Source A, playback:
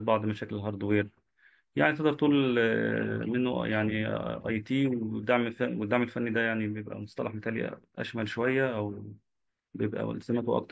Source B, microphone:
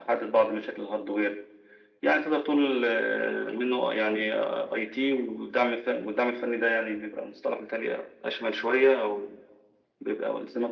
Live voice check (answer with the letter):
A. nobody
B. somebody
A